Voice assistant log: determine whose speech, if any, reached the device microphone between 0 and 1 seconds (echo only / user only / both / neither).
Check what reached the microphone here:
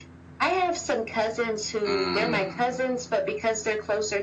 echo only